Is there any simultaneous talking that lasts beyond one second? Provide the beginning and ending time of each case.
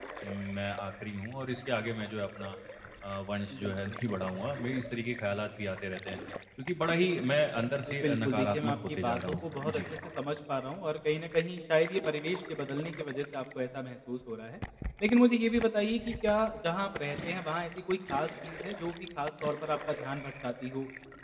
7.9-9.8

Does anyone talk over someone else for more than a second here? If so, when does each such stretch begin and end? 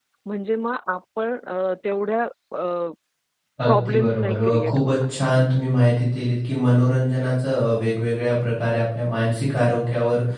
3.7-5.0

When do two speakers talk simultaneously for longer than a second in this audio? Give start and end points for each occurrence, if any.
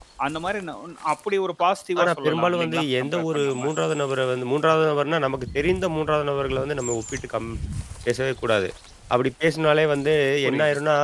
2.0-3.7

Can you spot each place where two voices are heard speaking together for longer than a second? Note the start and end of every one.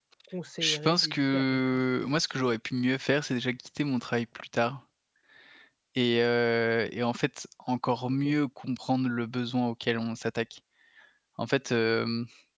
0.6-1.8

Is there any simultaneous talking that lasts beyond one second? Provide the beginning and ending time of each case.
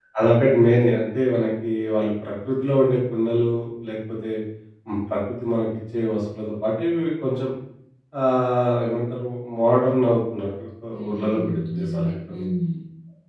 10.9-12.4

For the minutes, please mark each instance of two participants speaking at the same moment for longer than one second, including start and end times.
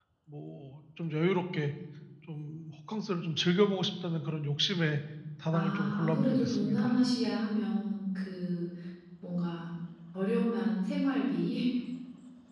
5.5-7.0

